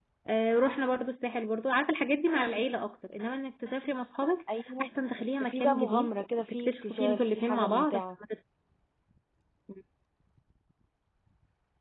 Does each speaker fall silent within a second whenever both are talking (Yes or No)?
No